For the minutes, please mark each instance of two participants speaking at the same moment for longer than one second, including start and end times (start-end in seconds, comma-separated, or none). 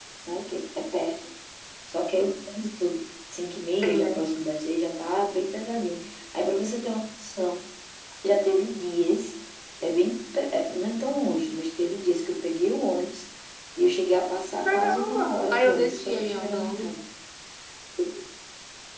14.7-16.9